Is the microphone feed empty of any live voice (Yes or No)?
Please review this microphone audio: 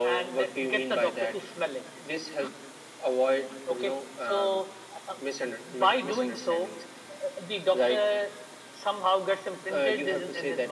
Yes